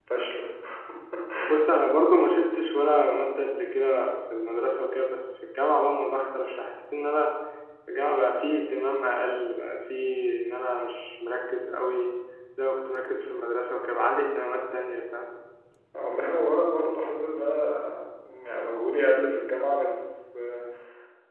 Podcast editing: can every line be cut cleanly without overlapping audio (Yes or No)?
Yes